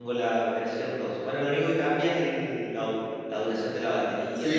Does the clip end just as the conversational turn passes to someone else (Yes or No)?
Yes